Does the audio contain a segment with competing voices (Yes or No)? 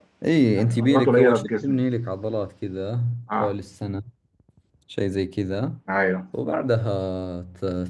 Yes